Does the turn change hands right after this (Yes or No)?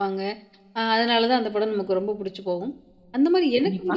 No